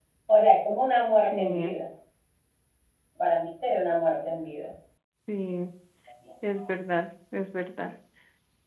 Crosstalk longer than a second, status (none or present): none